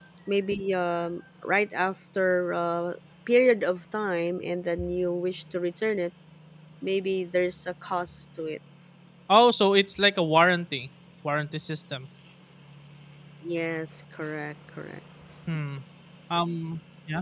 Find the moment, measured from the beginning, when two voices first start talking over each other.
none

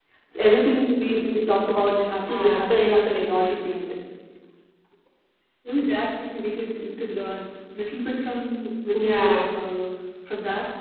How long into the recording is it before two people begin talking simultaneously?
2.3 s

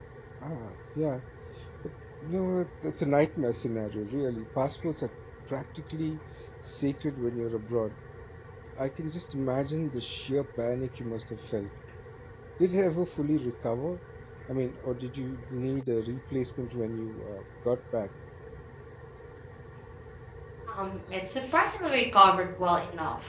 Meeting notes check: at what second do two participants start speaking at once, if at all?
none

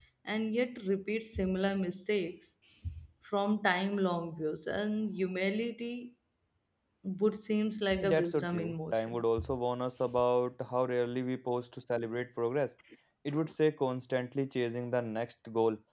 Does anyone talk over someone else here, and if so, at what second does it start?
8.0 s

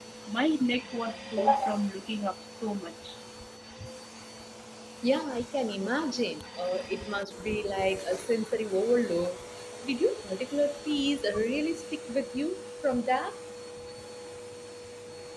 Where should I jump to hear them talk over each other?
none

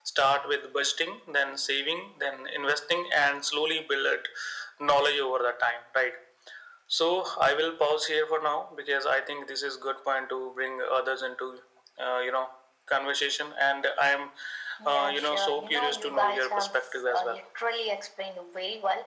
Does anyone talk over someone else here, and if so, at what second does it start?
14.9 s

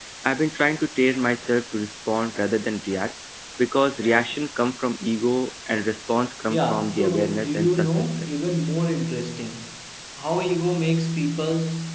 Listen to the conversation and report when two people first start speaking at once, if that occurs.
6.5 s

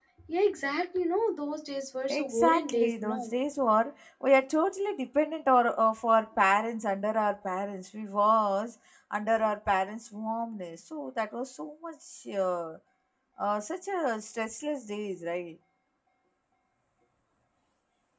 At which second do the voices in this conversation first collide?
2.1 s

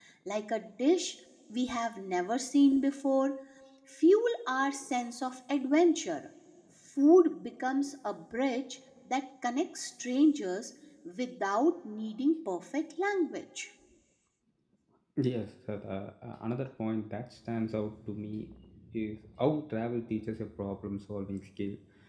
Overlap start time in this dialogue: none

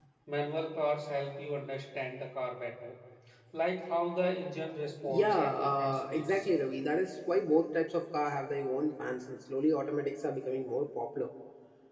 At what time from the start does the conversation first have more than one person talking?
5.0 s

